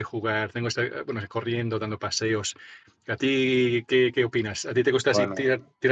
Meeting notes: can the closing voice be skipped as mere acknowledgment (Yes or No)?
Yes